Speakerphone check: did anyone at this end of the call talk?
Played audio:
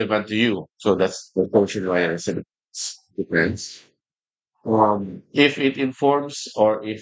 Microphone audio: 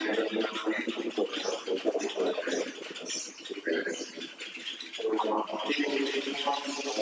No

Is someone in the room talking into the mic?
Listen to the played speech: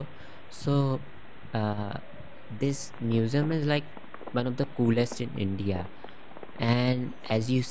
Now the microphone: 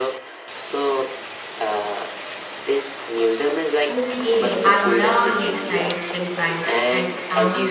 Yes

